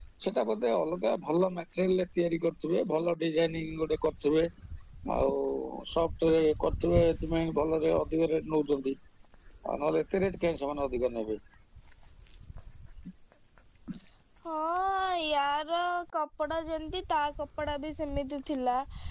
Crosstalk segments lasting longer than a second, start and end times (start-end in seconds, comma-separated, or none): none